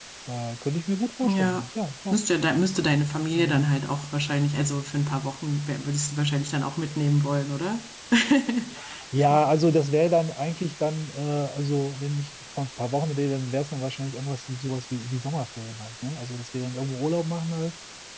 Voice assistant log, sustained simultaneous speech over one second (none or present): none